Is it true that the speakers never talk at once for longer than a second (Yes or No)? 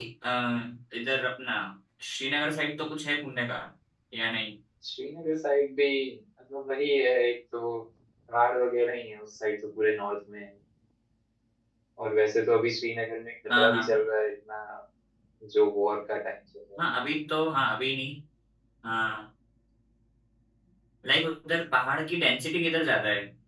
Yes